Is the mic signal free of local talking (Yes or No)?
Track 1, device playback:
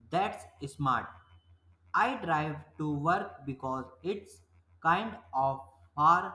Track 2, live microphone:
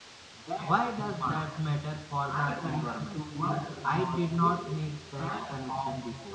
No